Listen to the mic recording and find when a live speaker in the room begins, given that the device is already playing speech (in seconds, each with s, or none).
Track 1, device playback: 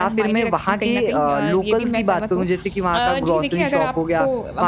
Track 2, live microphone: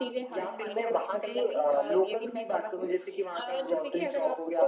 none